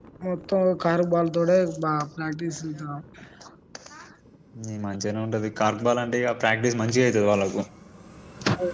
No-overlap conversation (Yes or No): Yes